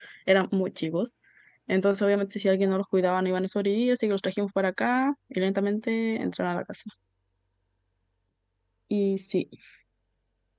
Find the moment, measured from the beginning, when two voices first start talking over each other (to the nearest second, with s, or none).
none